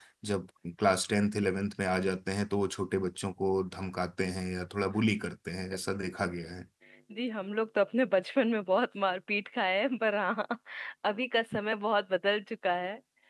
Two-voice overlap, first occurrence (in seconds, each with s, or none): none